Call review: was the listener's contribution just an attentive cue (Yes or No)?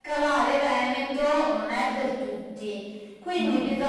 Yes